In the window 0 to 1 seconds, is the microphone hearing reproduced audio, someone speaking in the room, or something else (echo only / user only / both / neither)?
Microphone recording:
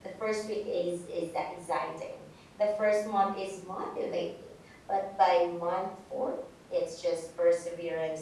echo only